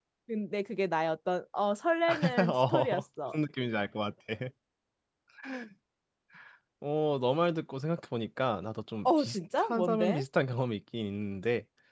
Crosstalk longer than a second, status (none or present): present